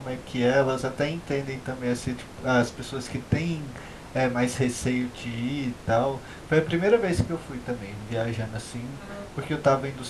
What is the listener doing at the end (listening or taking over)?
listening